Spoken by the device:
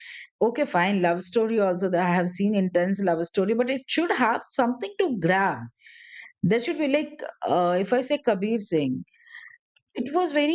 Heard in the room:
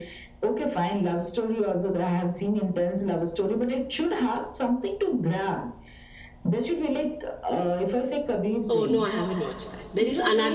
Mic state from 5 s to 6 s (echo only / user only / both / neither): echo only